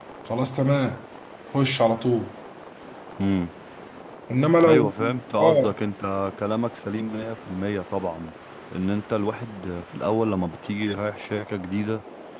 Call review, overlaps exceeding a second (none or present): none